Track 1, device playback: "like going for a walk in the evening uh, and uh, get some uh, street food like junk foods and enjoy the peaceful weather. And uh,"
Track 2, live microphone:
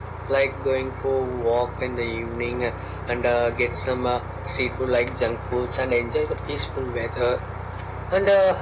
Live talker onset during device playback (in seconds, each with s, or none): none